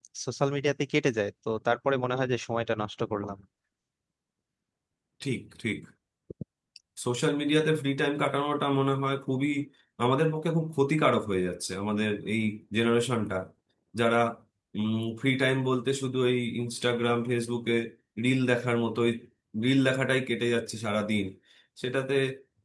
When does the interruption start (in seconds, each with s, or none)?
none